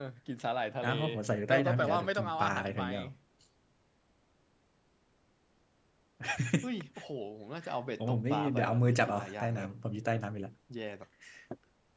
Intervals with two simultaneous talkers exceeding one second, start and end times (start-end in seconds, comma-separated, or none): 1.5-2.8, 8.0-9.7